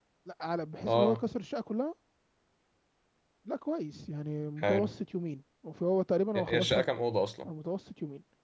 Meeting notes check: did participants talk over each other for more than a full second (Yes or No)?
No